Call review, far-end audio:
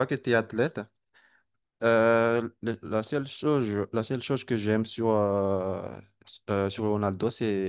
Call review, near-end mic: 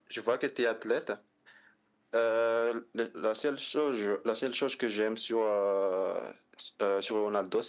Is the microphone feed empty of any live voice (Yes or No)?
Yes